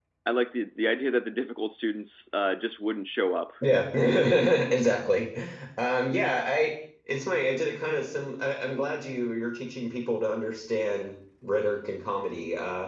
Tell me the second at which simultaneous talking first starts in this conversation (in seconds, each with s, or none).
none